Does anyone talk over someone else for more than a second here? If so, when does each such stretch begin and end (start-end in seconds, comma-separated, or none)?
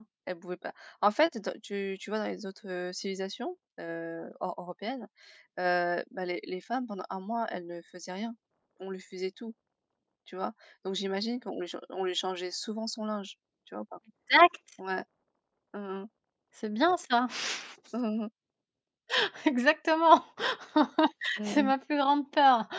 none